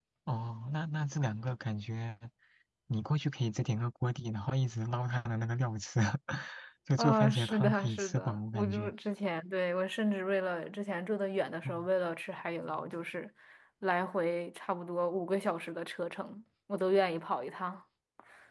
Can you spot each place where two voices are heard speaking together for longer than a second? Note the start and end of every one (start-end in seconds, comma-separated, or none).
7.0-8.9